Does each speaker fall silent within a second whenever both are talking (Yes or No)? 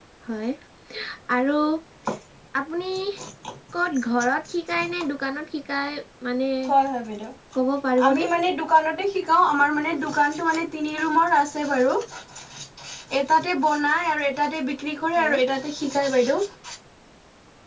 Yes